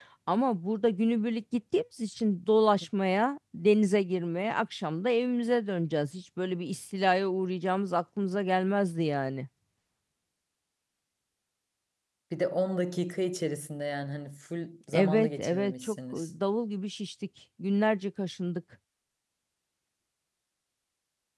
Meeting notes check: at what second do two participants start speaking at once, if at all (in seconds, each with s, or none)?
14.9 s